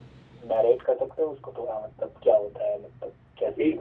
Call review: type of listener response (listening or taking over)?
taking over